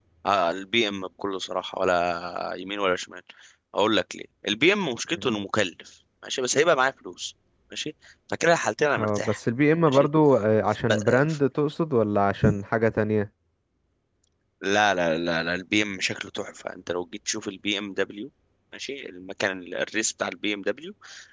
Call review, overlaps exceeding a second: none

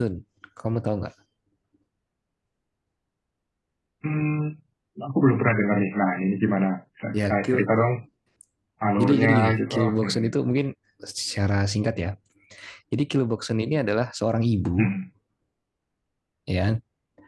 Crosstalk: present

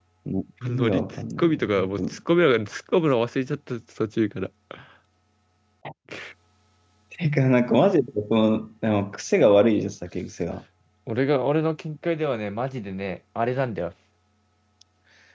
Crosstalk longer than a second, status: present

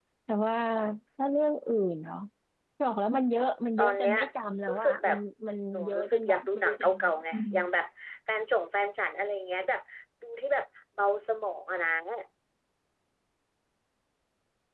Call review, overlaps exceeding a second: present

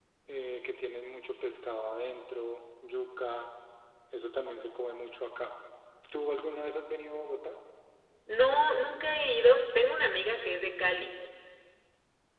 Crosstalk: none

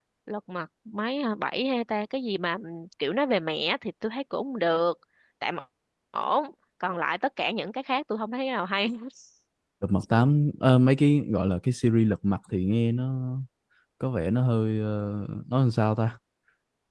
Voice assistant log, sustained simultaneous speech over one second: none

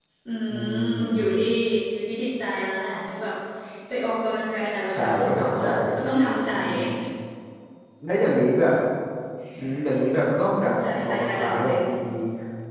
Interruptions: present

